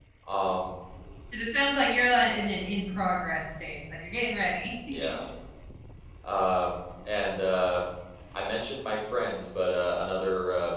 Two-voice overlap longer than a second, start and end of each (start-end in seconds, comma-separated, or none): none